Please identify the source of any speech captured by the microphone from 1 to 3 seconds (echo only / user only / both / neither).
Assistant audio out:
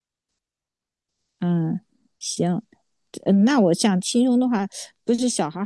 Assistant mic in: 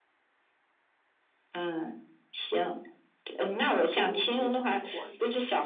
echo only